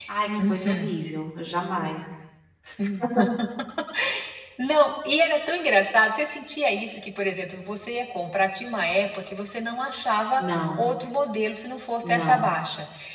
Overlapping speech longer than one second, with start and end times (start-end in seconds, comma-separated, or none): none